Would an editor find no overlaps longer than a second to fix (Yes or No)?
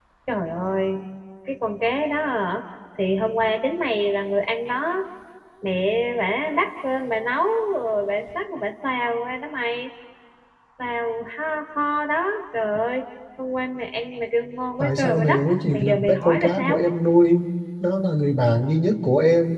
No